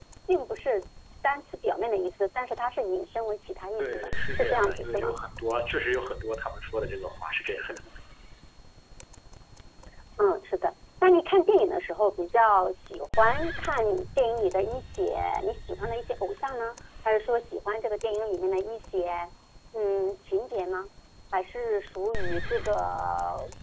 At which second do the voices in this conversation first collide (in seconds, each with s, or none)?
3.8 s